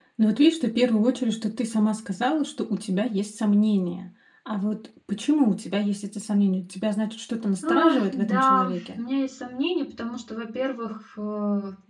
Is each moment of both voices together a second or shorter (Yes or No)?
No